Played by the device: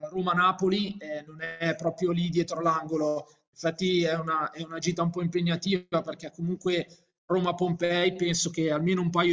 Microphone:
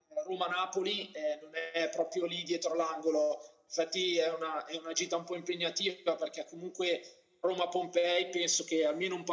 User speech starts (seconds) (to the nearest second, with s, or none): none